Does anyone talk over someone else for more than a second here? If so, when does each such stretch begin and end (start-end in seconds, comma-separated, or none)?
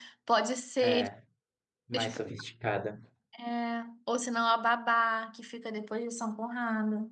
none